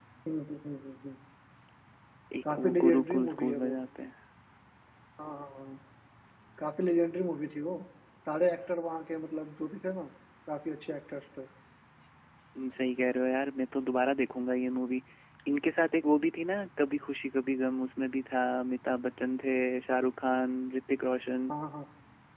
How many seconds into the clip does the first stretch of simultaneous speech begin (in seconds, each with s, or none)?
2.5 s